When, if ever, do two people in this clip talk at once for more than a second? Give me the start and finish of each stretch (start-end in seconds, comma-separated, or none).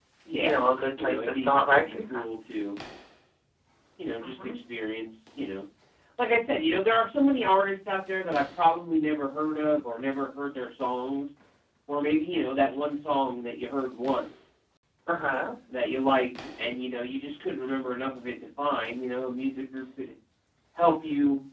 1.0-2.2